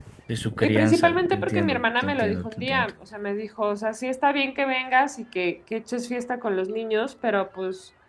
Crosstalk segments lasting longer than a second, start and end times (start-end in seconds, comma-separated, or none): 0.6-2.9